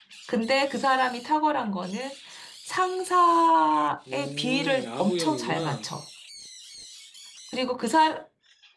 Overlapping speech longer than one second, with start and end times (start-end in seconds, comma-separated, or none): 4.1-5.8